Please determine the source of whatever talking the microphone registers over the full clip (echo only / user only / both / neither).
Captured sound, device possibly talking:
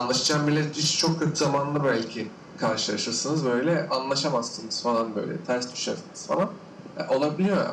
echo only